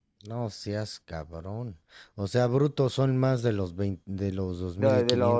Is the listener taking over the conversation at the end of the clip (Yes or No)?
Yes